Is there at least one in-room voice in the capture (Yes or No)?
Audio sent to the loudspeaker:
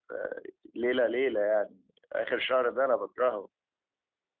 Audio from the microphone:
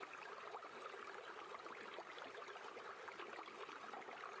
No